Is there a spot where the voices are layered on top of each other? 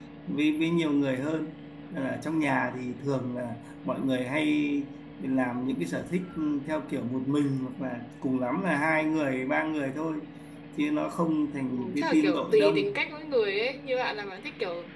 Yes, from 11.7 s

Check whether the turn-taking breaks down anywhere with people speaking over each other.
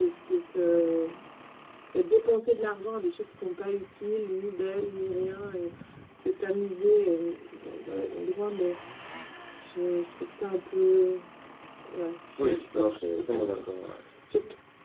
Yes, from 12.4 s

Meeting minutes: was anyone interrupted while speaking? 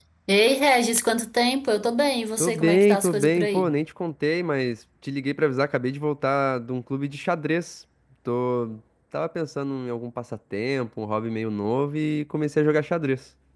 Yes, from 2.4 s

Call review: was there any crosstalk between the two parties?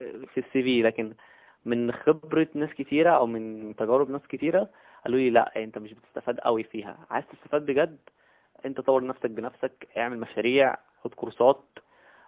No

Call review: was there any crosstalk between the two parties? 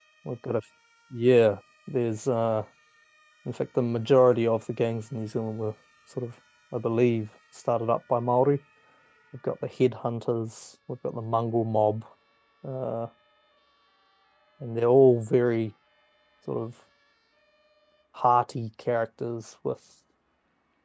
No

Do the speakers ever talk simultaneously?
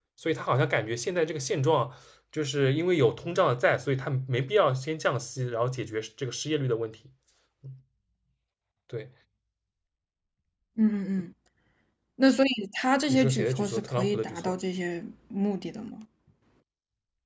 Yes, from 13.1 s

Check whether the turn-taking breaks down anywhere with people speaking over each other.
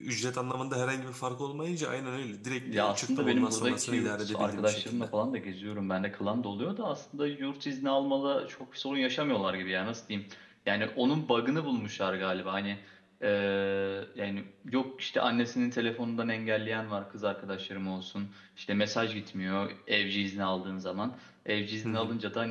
Yes, from 2.7 s

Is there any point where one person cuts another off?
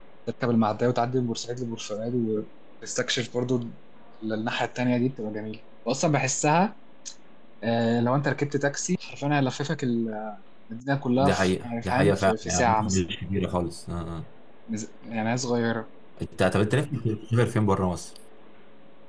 Yes, from 11.2 s

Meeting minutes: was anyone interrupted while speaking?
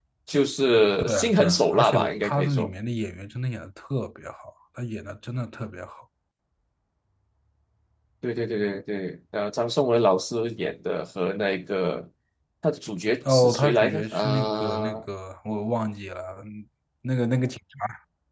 Yes, from 1.0 s

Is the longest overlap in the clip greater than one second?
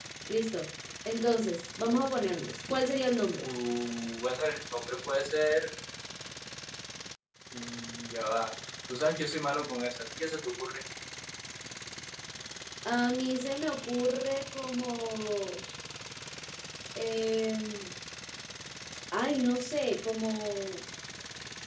No

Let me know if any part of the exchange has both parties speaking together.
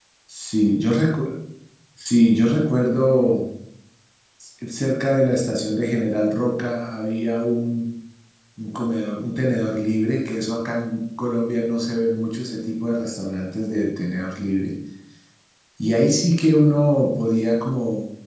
No

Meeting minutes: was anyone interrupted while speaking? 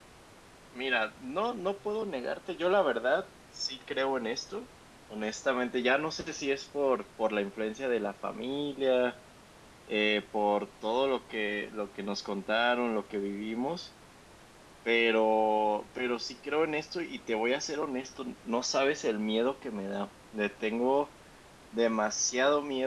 No

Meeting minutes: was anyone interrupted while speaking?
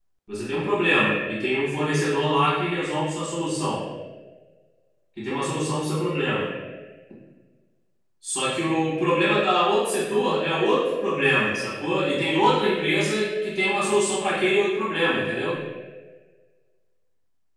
No

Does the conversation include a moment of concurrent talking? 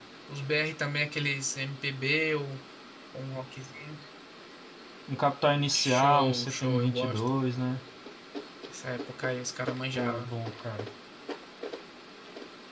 Yes, from 5.7 s

